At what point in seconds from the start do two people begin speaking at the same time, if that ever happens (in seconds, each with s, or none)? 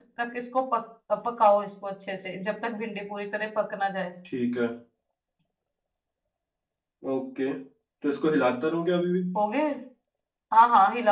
none